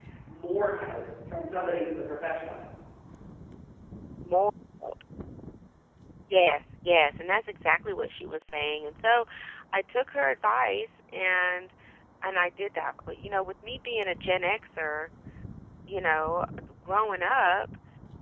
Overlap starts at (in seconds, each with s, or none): none